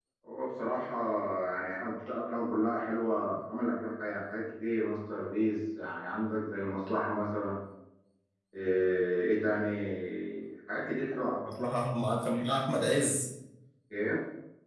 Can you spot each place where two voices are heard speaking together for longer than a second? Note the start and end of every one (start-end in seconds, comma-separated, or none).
none